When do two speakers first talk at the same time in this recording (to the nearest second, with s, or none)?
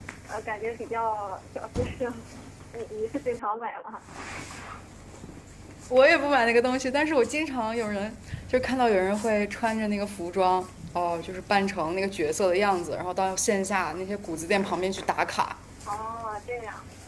none